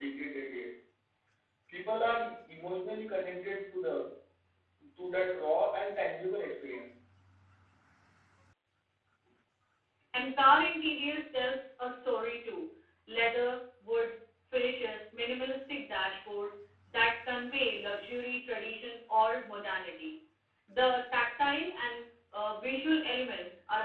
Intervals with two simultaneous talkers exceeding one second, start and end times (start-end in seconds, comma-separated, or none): none